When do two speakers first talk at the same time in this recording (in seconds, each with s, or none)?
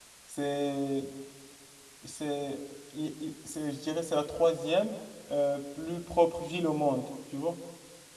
none